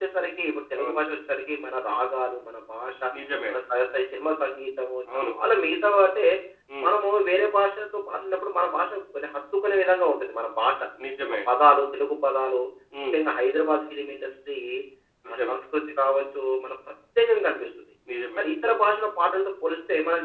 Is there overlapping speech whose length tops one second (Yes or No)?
No